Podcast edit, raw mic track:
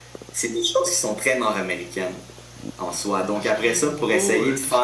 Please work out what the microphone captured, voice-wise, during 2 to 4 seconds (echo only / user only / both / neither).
both